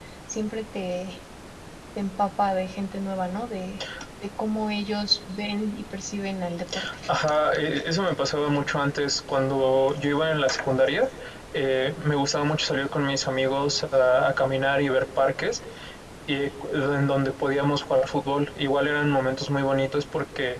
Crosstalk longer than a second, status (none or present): none